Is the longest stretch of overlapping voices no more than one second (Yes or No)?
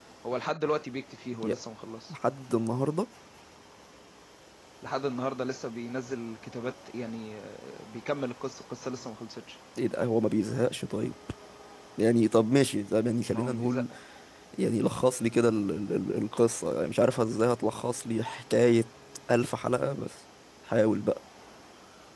Yes